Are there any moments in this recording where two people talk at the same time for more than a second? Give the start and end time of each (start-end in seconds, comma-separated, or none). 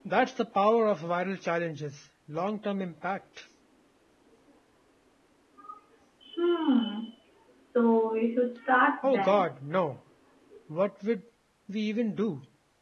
none